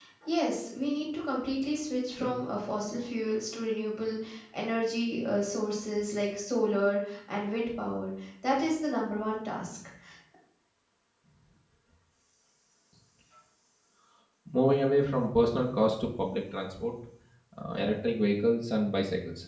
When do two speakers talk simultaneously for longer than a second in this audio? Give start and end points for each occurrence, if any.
none

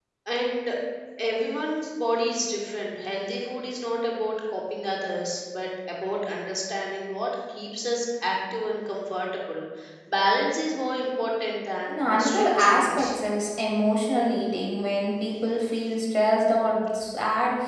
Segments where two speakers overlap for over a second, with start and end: 11.9-13.1

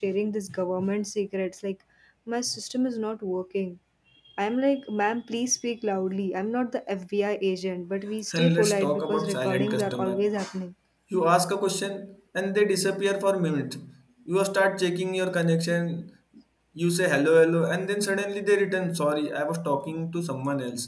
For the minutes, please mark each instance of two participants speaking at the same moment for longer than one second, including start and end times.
8.3-10.3

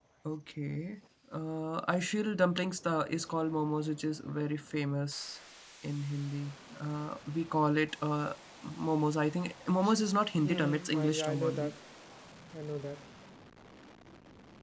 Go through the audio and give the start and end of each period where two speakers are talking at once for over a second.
10.4-11.7

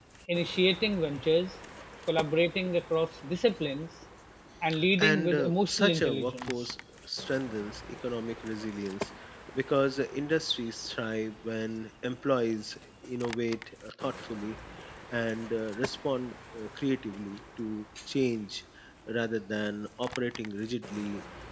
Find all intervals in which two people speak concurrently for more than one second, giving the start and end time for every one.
5.0-6.7

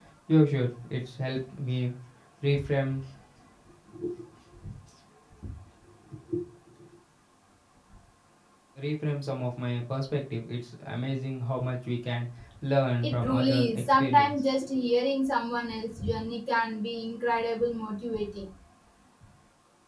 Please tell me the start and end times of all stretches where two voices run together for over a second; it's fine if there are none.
13.0-14.3

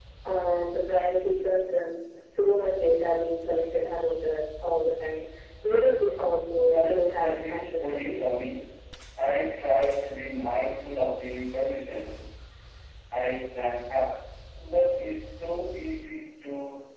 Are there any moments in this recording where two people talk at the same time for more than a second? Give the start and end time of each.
6.7-8.3

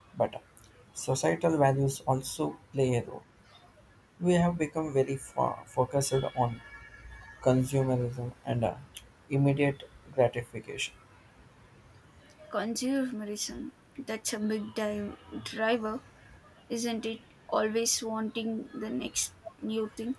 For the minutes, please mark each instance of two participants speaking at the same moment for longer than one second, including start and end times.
none

